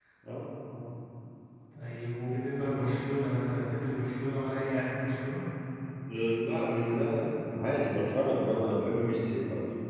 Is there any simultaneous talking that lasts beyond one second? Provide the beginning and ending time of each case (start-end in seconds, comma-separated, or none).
none